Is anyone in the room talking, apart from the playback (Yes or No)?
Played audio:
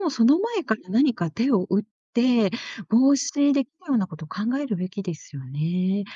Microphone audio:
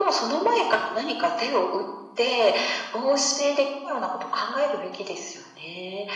No